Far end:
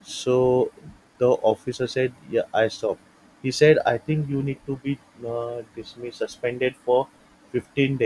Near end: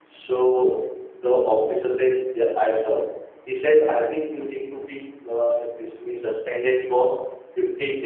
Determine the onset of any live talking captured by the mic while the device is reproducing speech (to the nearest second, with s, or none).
none